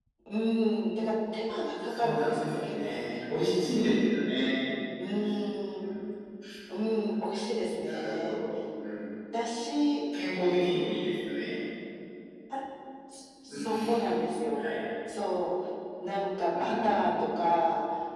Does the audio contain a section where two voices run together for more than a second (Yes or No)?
Yes